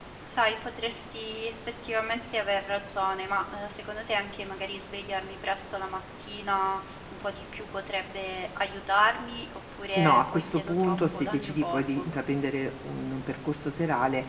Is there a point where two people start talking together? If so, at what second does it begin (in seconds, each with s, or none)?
10.0 s